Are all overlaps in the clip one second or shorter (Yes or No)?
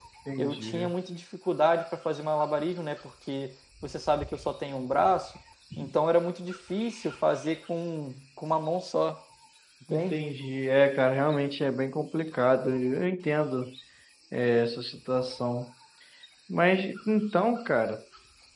Yes